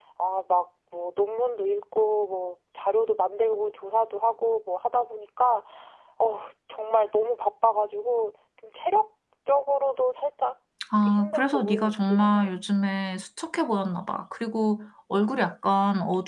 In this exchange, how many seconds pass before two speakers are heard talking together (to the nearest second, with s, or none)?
11 s